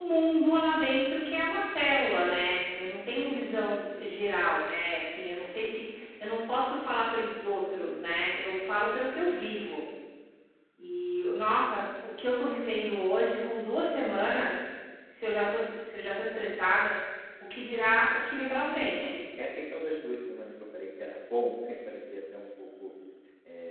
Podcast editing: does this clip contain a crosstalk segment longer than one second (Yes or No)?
No